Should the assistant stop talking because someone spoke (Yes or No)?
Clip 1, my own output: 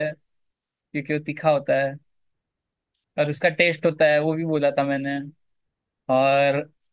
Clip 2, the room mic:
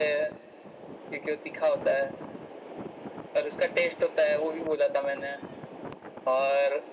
No